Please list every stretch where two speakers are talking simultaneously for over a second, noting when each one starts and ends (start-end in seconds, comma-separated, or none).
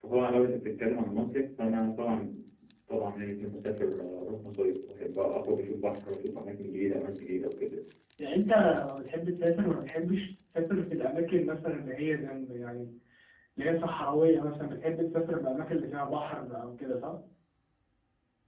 none